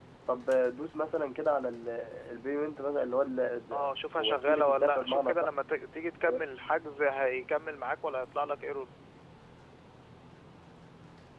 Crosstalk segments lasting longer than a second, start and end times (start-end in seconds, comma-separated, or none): 3.7-5.5